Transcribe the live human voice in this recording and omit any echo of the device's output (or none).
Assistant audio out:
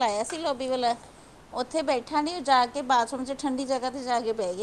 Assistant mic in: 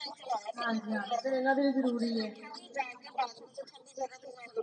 ਹਾਂਜੀ ਹਾਂਜੀ ਫੇਰ ਇਹਨਾਂ ਦੇ ਵੀ ਜ਼ਰੂਰੀ ਏ।